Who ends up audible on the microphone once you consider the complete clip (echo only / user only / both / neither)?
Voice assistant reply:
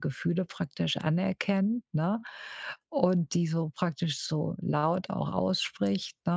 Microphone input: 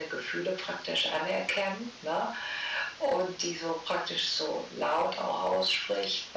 echo only